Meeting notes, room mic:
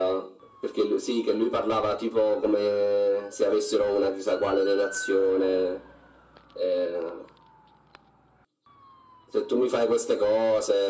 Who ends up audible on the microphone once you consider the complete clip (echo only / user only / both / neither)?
echo only